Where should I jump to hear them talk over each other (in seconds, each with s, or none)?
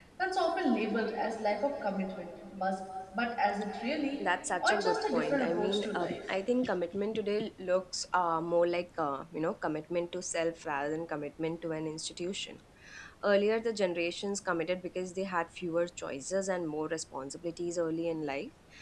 4.6 s